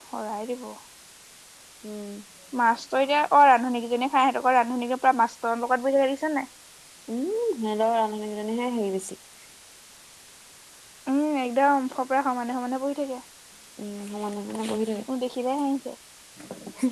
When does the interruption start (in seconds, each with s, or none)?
none